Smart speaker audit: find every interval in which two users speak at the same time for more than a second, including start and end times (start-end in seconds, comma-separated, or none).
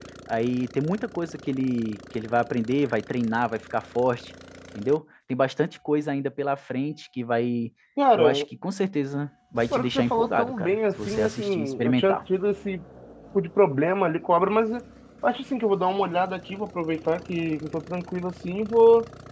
9.7-12.2